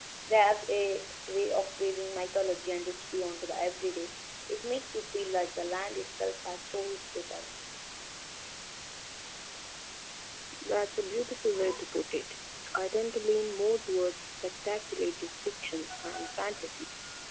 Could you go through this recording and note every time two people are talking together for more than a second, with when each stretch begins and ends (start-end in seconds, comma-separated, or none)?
none